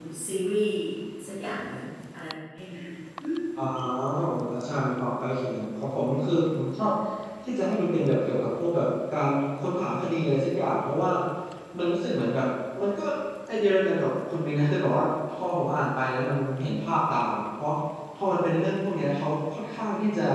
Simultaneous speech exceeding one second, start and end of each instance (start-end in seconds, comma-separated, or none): none